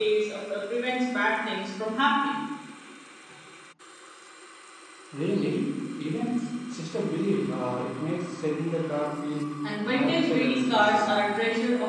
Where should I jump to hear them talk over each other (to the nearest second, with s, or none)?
10 s